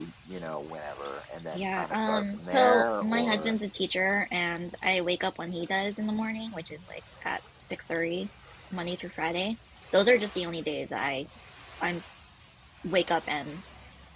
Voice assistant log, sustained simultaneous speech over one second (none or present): present